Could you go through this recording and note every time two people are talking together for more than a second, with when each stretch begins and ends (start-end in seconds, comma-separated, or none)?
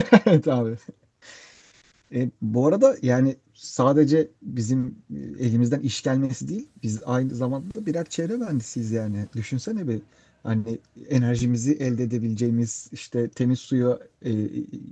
none